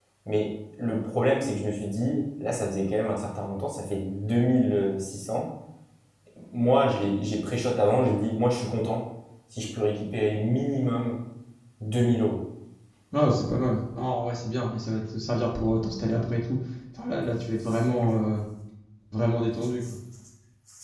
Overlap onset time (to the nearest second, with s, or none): none